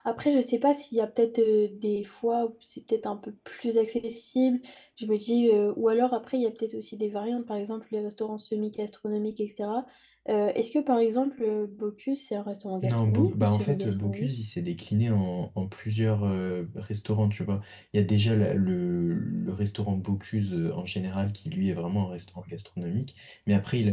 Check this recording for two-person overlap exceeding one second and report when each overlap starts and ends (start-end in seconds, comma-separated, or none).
12.8-14.3